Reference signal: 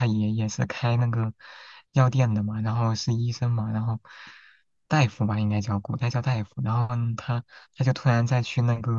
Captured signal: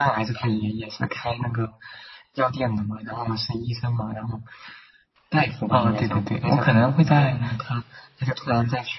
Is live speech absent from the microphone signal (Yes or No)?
No